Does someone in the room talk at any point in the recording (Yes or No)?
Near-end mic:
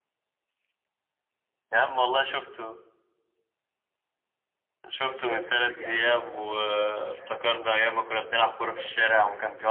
Yes